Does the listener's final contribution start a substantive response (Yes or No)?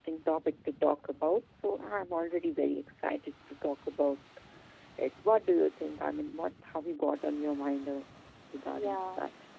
Yes